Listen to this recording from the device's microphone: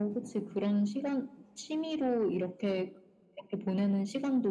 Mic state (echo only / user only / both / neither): echo only